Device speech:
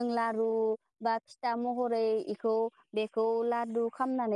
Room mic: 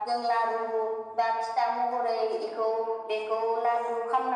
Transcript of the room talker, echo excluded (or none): none